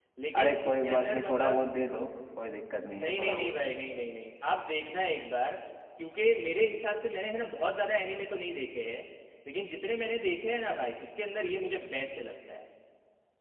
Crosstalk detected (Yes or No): Yes